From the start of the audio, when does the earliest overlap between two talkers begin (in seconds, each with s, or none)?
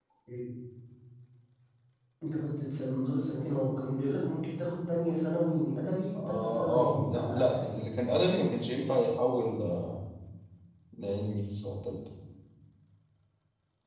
6.1 s